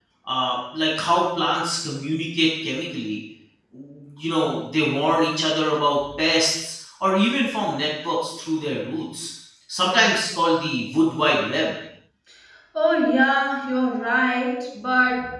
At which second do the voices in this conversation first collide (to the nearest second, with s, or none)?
none